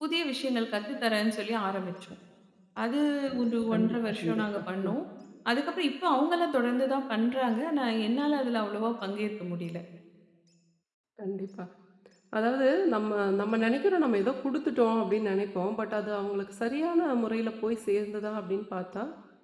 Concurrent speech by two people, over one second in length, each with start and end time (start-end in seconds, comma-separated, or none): 3.7-4.9